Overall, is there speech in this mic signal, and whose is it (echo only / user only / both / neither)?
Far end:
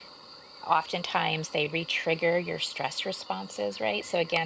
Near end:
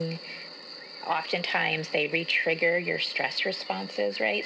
echo only